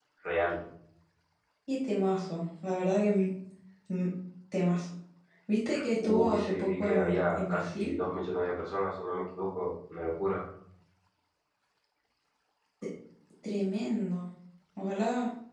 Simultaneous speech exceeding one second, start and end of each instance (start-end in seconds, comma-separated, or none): 6.0-8.0